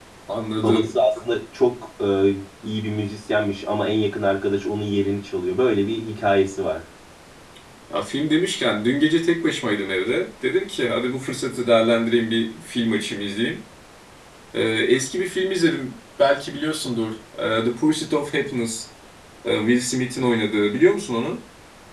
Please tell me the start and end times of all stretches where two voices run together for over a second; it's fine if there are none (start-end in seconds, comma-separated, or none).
none